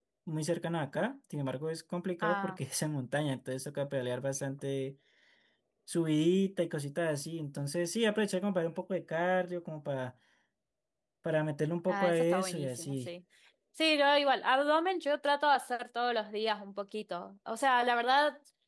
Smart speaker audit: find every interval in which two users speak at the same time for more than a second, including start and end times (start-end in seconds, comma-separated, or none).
11.9-13.1